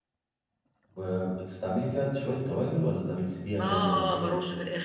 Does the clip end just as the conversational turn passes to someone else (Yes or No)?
Yes